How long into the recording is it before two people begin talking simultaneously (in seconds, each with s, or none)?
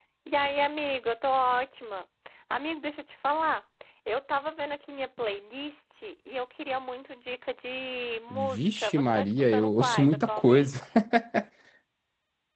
8.3 s